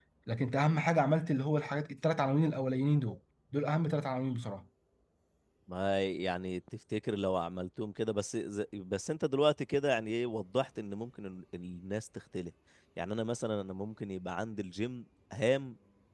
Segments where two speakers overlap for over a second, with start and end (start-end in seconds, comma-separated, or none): none